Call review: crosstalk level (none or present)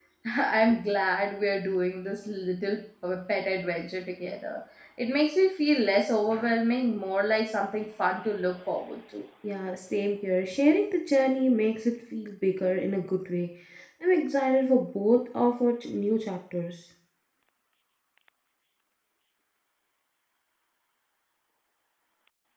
none